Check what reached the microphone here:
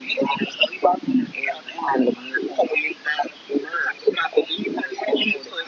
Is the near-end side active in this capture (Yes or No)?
No